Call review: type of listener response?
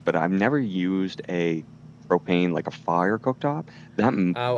taking over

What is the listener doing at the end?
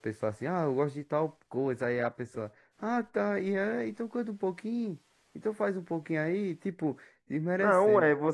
taking over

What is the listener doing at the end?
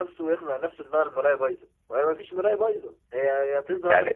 taking over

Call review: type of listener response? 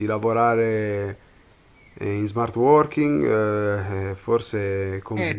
taking over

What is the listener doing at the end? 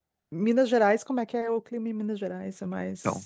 taking over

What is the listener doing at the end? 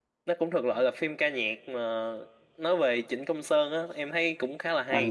taking over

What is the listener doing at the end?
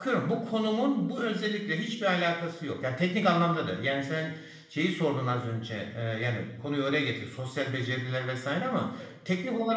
listening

